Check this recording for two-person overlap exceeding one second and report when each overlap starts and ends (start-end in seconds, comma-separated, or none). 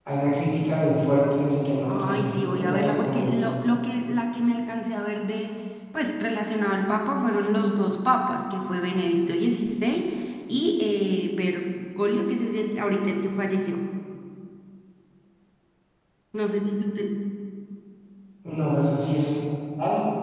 1.9-3.4